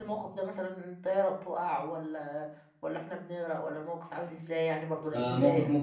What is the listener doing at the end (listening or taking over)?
taking over